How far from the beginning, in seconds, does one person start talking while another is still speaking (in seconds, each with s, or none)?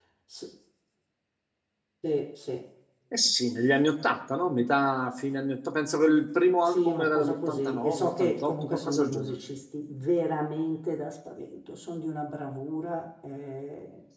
6.7 s